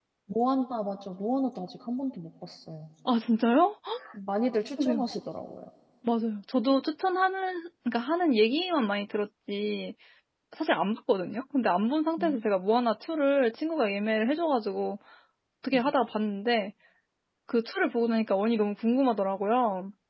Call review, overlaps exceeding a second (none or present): none